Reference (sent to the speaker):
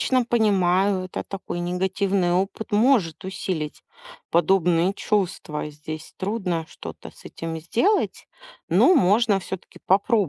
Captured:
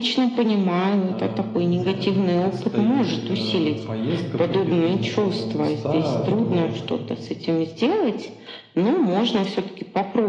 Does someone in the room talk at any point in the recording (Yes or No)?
Yes